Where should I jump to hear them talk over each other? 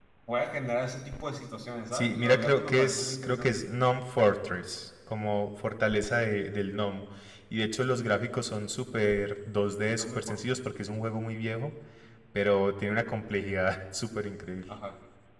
1.9 s

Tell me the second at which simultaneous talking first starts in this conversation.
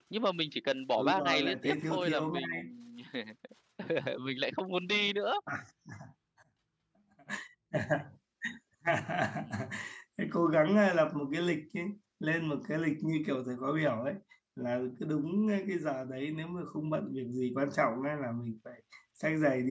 1.0 s

